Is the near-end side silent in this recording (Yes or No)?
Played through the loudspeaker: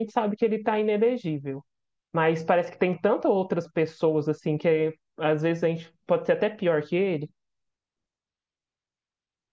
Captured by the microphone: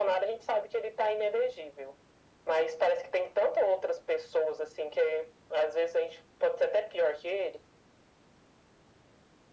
Yes